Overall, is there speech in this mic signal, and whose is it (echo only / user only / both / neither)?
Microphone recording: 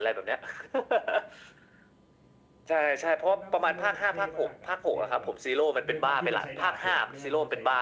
both